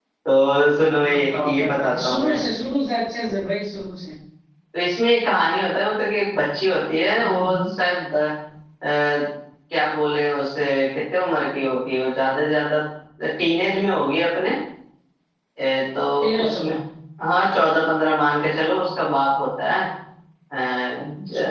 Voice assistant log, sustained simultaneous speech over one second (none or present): present